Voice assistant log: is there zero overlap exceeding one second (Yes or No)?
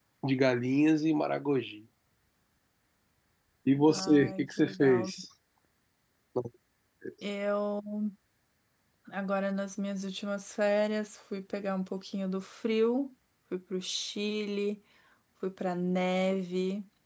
No